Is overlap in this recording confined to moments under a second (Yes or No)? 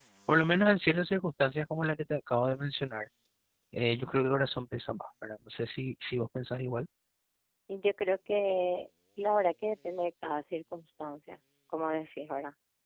Yes